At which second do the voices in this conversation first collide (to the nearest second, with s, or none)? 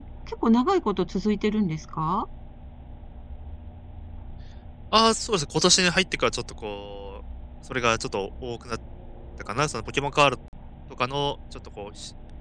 none